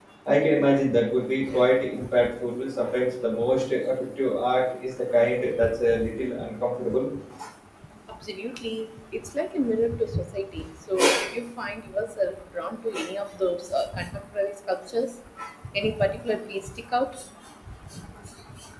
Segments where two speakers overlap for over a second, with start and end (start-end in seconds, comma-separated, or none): none